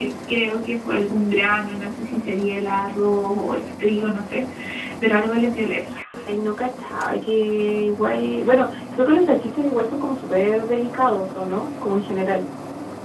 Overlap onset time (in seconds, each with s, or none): none